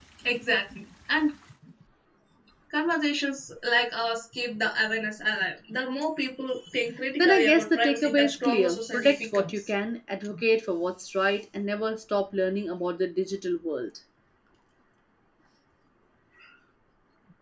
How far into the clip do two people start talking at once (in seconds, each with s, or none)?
7.2 s